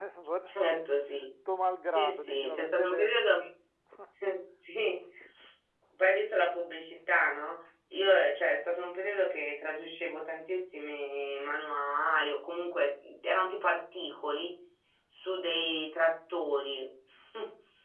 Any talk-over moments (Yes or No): Yes